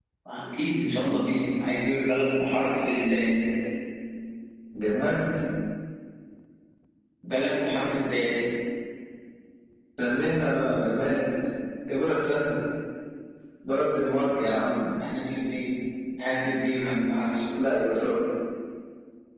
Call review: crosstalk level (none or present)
none